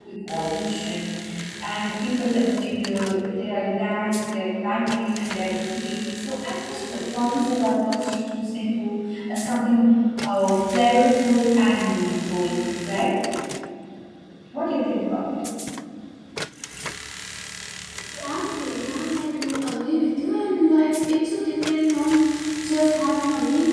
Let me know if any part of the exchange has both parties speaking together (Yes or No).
No